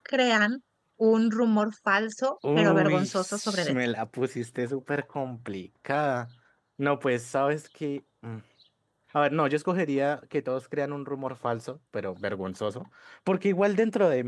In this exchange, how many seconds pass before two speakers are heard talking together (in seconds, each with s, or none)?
2.4 s